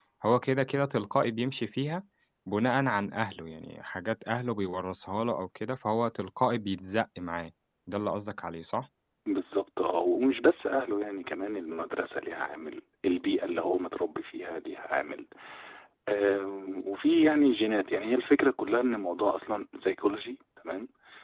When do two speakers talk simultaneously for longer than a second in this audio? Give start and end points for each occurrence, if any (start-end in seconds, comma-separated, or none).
none